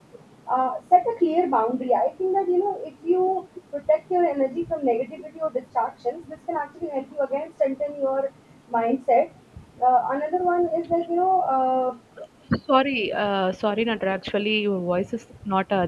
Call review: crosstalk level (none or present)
none